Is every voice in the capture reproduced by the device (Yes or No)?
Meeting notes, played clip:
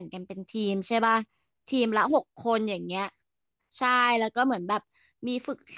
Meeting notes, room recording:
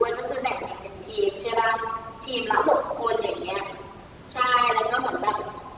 Yes